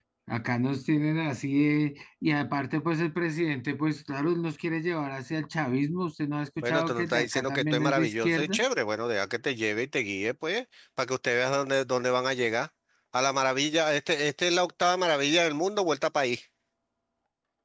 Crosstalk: present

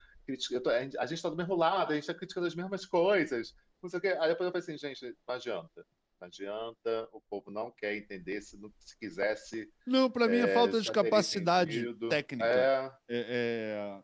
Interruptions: present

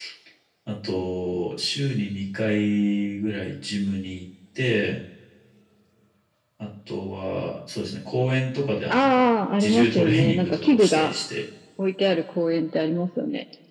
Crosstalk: present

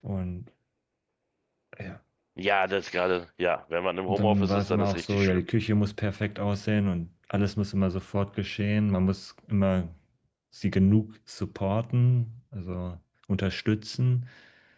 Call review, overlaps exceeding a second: present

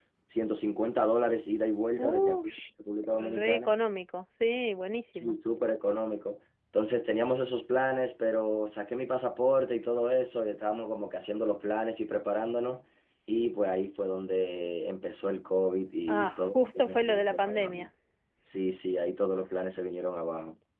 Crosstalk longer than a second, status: present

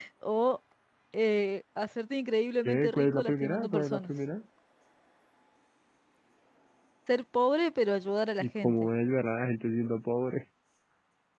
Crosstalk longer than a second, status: present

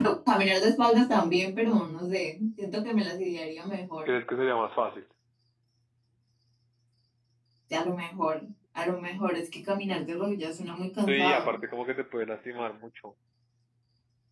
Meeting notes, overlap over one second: none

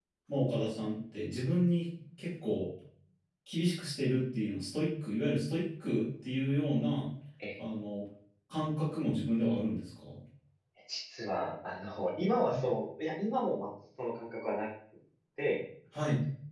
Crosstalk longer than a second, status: none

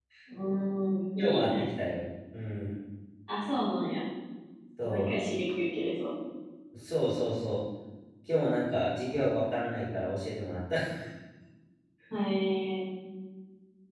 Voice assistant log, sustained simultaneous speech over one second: none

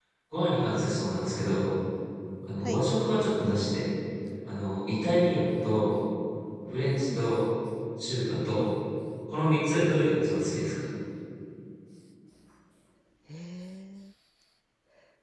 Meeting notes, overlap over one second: none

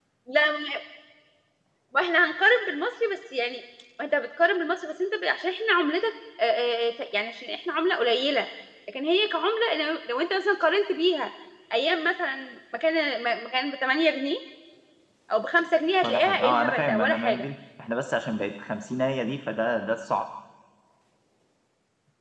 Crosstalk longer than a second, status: present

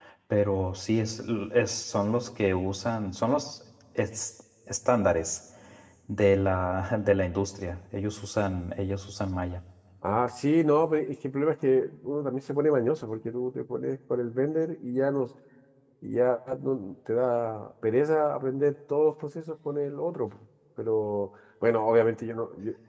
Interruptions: none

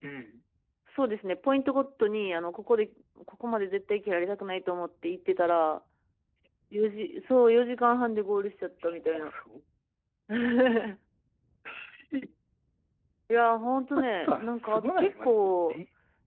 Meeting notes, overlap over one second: present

